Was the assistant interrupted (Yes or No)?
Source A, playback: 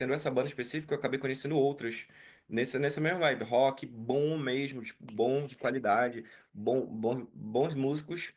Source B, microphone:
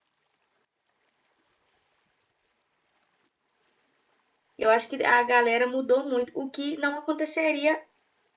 Yes